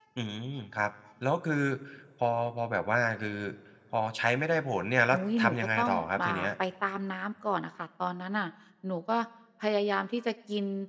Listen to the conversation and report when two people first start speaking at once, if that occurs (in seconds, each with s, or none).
5.1 s